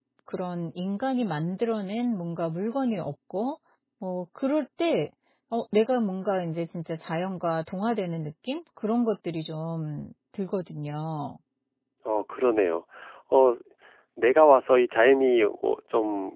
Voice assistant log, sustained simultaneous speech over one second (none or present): none